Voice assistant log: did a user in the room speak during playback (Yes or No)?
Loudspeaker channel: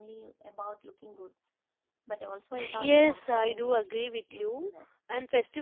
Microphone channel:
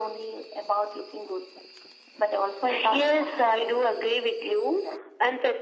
No